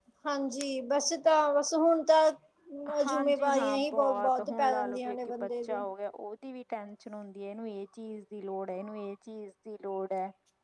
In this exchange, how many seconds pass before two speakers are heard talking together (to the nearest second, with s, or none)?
3 s